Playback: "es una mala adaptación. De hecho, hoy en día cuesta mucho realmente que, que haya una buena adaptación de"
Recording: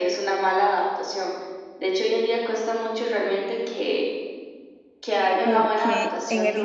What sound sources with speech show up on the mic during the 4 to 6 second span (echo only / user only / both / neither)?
both